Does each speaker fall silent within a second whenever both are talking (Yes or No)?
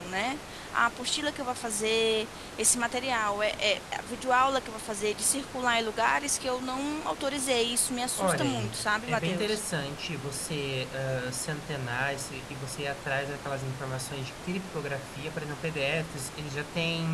No